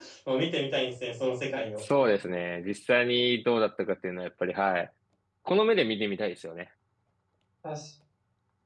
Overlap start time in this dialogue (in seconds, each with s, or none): none